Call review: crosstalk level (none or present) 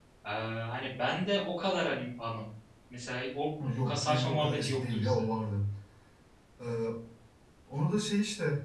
present